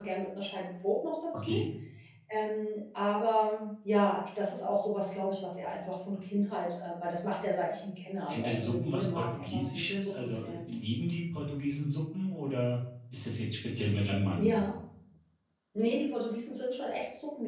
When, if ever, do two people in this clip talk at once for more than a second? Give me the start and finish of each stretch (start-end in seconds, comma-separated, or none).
8.3-10.6